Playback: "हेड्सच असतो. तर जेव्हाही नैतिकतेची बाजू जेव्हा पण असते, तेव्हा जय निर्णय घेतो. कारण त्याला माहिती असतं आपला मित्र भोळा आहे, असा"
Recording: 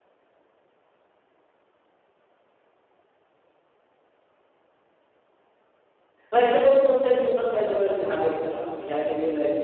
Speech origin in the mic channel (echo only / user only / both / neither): user only